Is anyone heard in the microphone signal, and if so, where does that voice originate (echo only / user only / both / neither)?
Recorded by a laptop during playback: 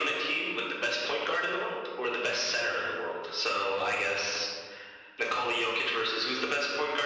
echo only